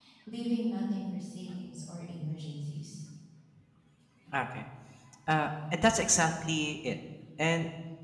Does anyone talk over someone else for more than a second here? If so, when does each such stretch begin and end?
none

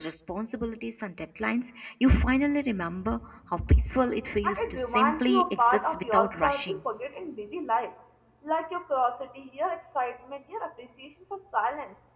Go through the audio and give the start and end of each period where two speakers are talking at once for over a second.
4.4-6.8

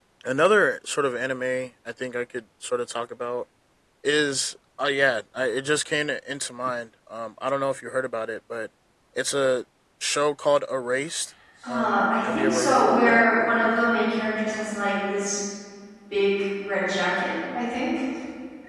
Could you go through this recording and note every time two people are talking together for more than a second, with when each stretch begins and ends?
11.7-13.2

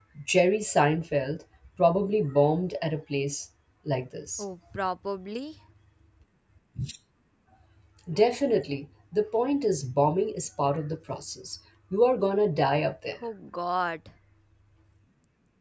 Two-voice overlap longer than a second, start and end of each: none

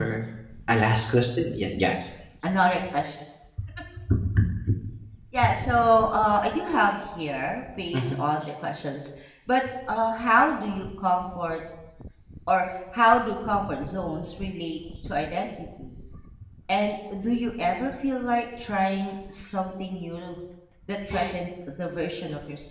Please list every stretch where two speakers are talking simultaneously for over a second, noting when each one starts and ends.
none

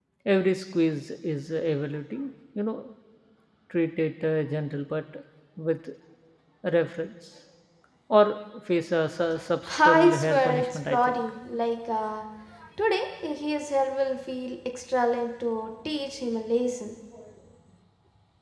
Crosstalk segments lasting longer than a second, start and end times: 9.8-11.2

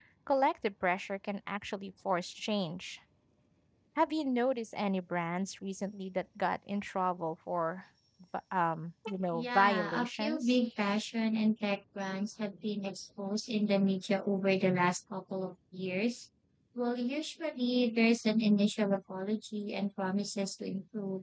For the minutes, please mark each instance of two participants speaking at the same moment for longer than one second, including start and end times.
9.3-10.6

